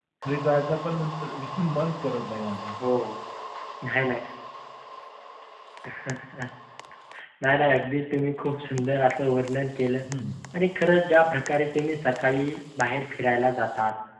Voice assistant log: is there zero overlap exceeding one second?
Yes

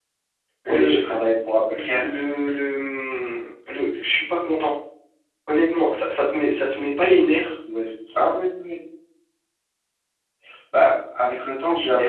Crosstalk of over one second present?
No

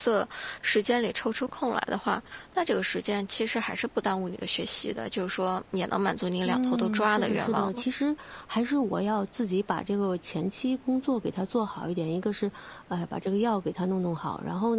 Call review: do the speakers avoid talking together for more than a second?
No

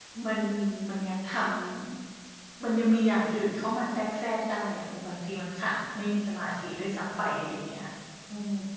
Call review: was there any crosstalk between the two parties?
No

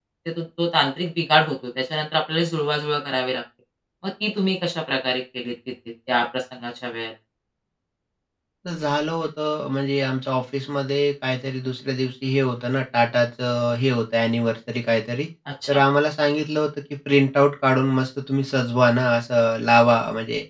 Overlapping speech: No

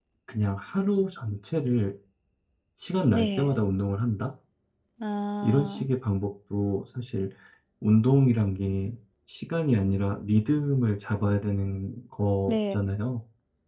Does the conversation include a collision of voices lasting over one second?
No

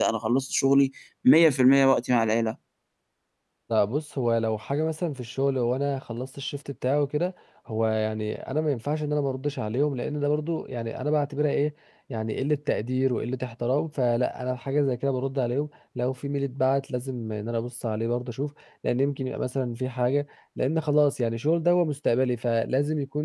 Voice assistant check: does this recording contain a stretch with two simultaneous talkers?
No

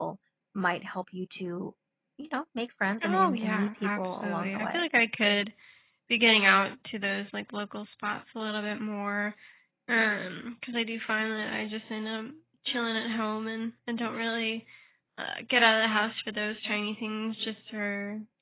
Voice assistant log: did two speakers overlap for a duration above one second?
Yes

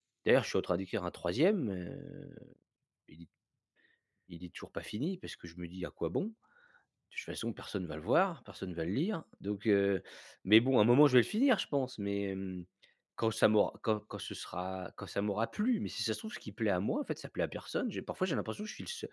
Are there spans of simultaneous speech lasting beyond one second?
No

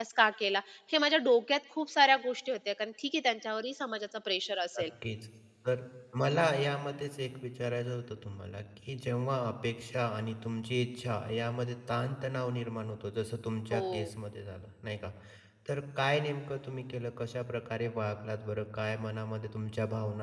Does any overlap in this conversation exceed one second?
No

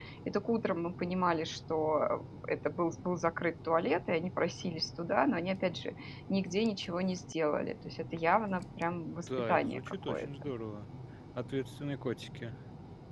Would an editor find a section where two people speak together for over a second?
Yes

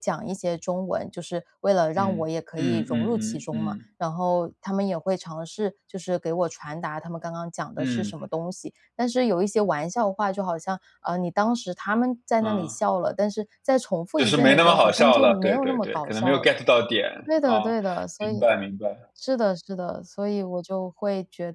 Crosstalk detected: Yes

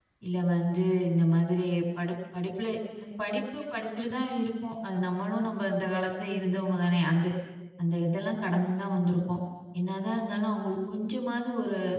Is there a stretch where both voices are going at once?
No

